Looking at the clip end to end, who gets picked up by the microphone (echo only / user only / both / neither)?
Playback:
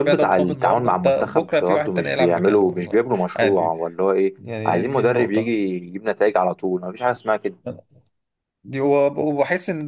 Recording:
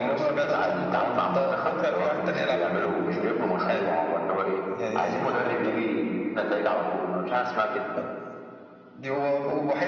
echo only